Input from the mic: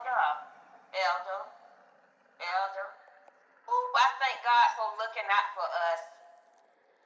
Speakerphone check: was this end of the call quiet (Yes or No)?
Yes